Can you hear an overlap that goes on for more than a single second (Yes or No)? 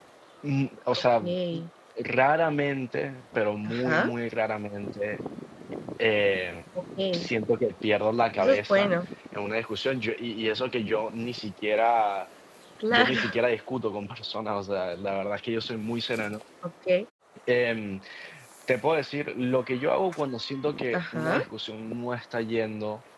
No